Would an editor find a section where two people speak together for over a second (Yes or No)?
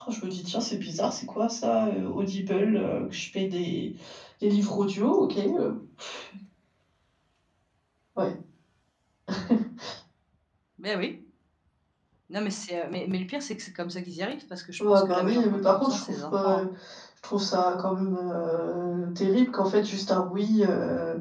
Yes